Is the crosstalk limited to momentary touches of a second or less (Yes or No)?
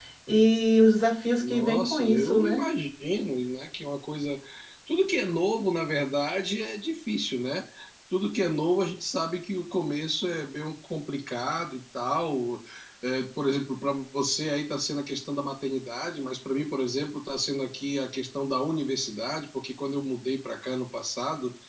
No